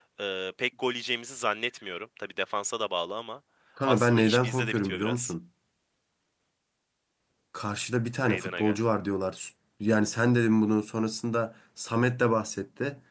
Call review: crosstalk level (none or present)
present